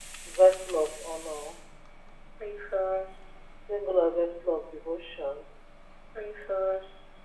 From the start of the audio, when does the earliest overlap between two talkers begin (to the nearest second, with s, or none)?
none